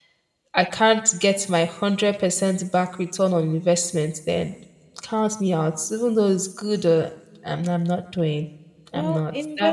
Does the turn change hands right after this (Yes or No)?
Yes